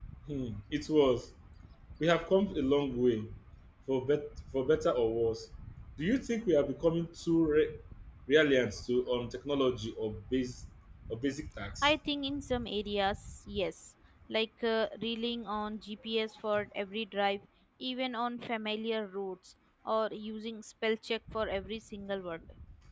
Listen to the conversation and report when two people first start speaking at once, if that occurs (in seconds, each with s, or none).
none